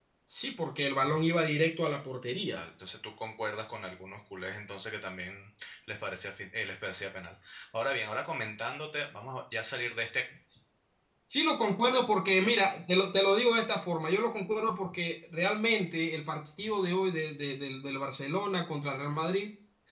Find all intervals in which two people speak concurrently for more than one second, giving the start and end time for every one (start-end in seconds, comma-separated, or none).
none